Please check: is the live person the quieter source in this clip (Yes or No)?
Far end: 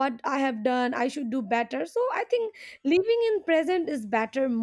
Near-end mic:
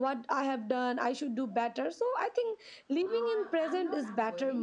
Yes